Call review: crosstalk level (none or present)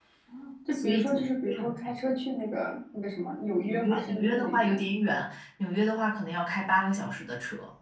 present